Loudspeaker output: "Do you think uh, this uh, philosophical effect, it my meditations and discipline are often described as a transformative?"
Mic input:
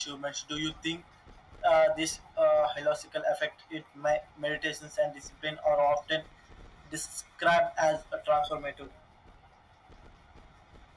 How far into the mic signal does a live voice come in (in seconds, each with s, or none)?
none